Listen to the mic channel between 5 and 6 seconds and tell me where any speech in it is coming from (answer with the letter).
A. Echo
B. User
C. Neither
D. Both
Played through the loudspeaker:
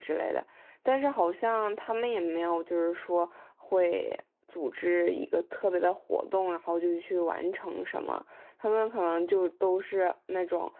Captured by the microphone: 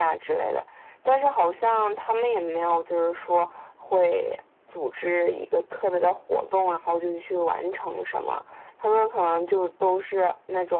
A